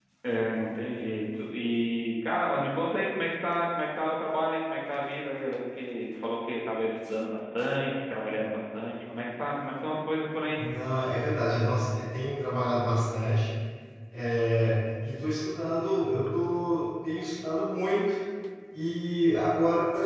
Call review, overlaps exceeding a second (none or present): none